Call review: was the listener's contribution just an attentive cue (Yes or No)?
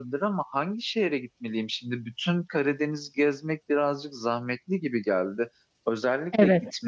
Yes